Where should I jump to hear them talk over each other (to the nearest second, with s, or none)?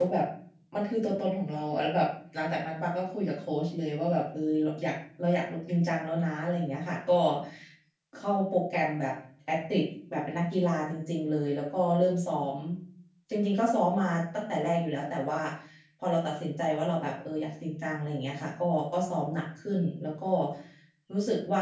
none